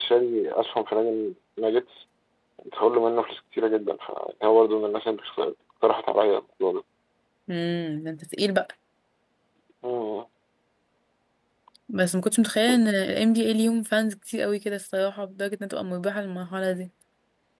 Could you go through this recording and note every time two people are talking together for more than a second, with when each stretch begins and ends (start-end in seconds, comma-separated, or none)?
none